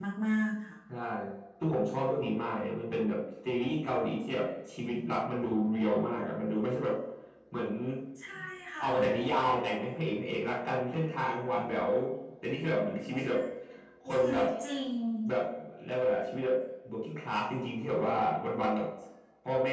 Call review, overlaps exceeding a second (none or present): none